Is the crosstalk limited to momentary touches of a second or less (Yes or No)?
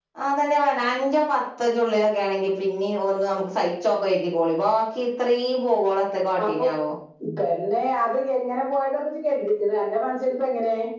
Yes